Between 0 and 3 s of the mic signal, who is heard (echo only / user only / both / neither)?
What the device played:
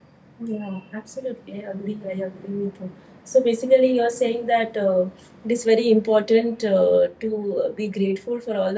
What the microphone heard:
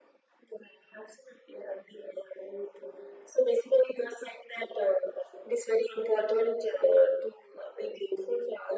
echo only